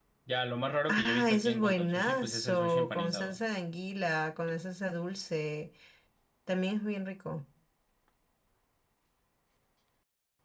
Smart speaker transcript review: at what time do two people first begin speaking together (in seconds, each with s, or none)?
0.9 s